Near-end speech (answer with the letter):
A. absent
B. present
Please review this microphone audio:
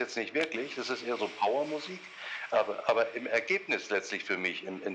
A